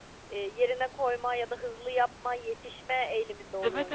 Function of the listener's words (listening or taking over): taking over